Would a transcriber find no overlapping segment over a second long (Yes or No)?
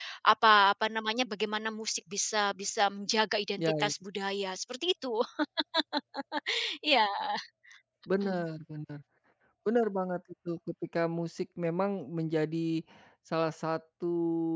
Yes